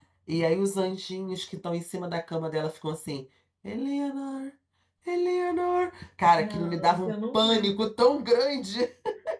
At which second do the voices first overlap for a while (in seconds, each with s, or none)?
6.4 s